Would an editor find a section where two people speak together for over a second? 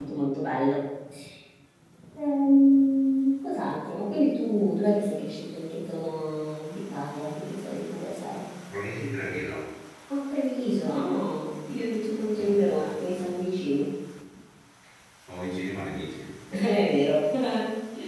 No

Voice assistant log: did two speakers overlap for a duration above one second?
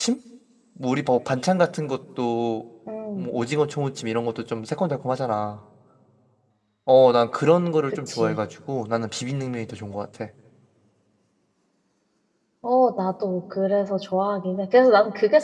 No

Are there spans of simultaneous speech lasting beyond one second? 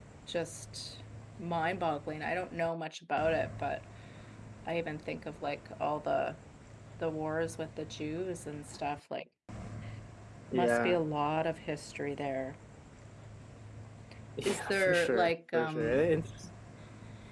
Yes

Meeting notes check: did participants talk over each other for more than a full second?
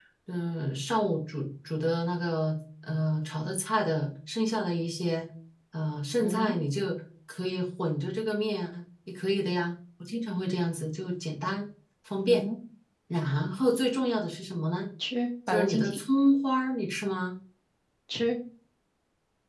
No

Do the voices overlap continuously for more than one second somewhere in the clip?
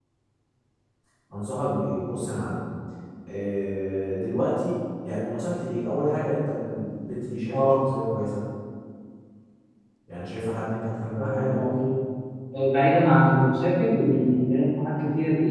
No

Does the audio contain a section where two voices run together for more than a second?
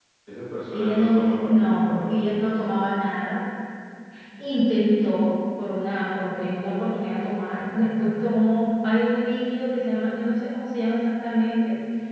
Yes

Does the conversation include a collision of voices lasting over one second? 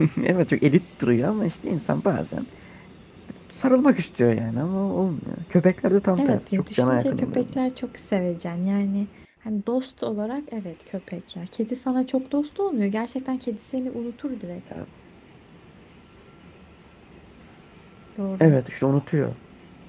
Yes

